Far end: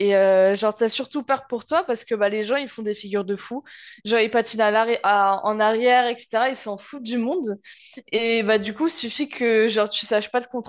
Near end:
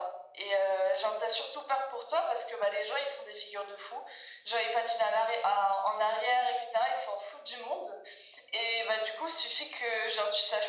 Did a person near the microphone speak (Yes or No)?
No